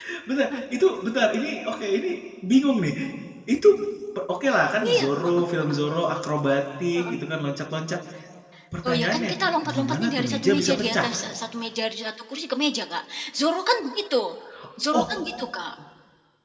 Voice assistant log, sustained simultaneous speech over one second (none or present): present